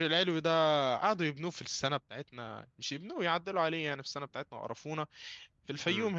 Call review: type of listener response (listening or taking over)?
listening